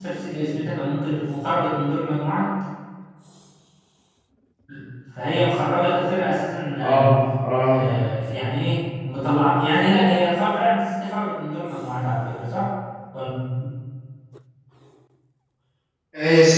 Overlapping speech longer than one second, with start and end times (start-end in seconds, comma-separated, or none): none